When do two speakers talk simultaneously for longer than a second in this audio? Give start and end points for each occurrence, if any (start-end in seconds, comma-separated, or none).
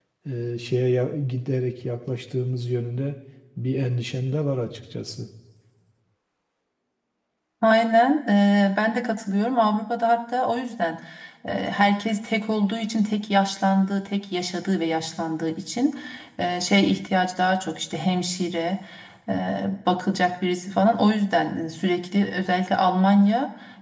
none